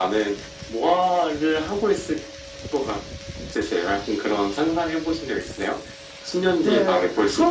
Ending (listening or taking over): taking over